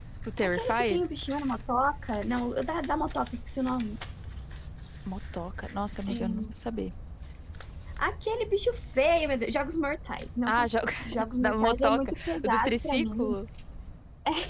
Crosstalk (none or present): present